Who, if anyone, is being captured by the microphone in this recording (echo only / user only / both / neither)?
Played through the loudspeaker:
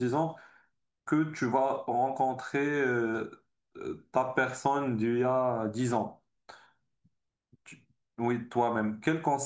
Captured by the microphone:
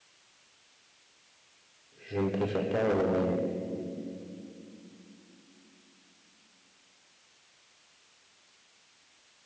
user only